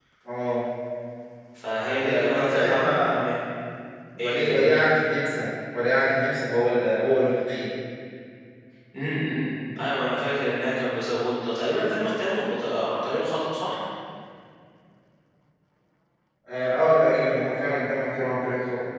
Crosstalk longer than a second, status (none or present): present